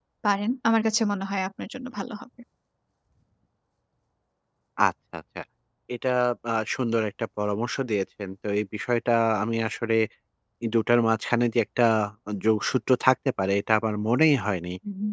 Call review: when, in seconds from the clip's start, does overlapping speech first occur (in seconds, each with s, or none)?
none